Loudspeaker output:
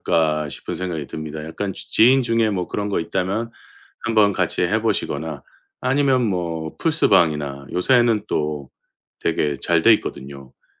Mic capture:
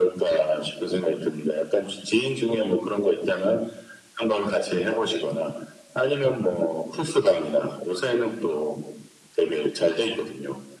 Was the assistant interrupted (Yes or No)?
No